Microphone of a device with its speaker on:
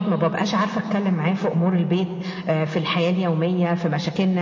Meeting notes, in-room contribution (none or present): none